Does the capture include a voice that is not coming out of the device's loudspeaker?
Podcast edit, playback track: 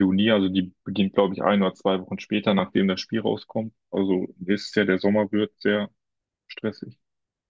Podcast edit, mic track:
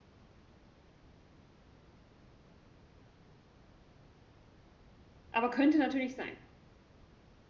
Yes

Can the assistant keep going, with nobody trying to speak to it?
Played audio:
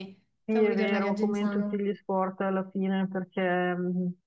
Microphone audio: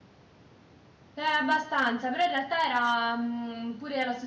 No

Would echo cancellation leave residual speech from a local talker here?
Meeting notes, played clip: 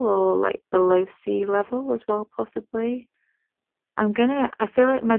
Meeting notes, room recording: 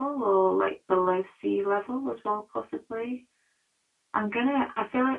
No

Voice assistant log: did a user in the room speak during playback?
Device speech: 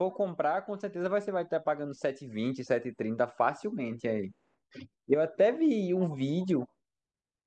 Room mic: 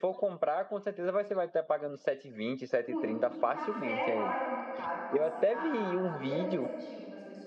Yes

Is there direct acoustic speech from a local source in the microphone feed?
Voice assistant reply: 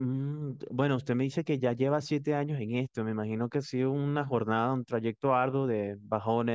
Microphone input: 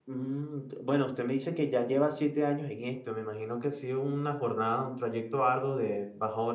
No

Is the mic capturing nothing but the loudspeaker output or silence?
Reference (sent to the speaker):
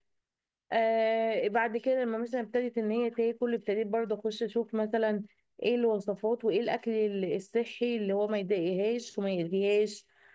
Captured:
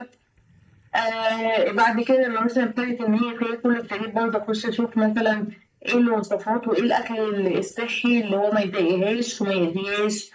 Yes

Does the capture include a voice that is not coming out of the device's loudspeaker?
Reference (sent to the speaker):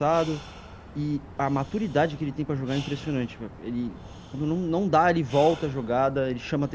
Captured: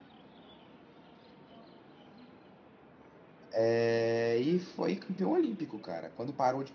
Yes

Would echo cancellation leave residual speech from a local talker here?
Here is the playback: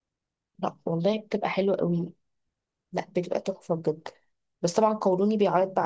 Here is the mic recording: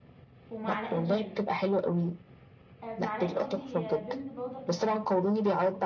Yes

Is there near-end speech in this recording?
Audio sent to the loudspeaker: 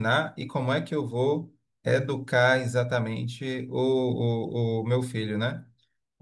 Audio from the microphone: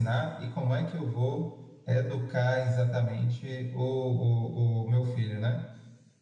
No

